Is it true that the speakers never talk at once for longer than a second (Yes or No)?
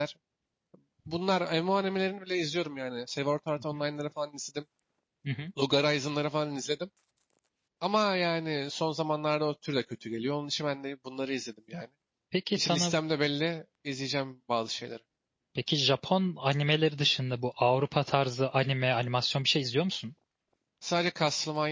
Yes